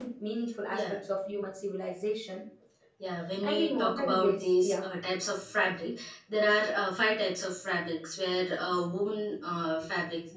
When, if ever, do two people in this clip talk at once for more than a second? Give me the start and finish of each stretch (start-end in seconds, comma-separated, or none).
3.4-4.8